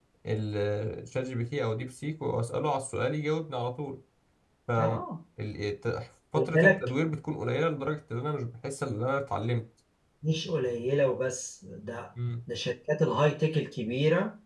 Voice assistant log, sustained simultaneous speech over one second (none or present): none